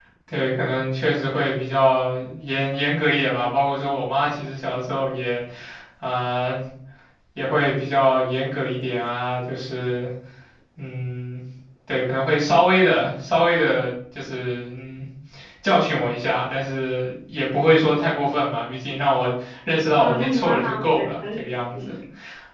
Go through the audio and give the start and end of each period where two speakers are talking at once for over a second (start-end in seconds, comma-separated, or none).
20.0-21.7